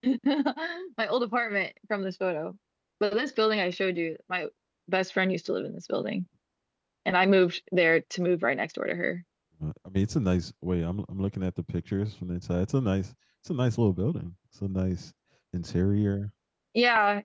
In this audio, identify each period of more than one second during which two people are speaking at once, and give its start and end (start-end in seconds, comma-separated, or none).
none